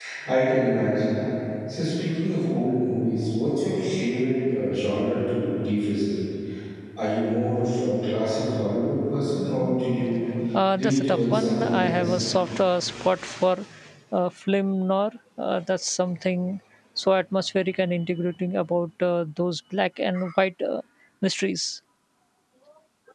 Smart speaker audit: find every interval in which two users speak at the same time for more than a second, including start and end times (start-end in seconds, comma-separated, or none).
10.7-12.2